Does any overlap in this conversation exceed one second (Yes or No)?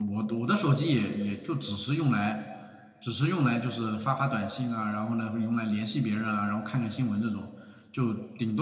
No